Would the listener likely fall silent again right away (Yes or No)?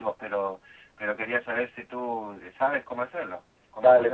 No